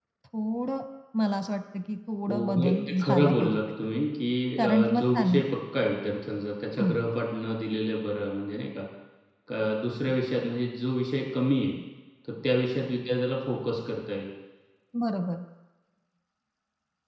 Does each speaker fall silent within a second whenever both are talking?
No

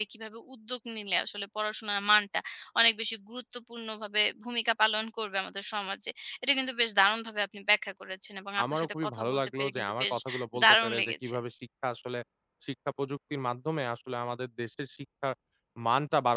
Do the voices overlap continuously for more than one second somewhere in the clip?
Yes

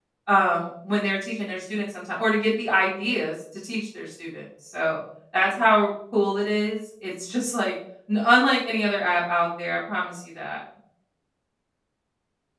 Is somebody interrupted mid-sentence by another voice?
No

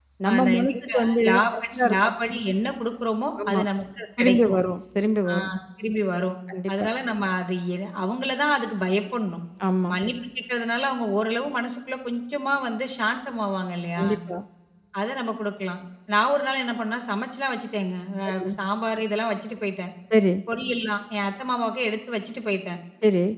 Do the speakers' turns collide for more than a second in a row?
Yes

